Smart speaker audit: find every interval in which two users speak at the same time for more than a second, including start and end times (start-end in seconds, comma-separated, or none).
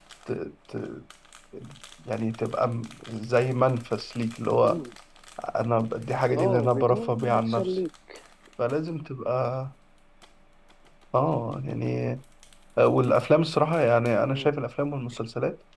6.4-7.8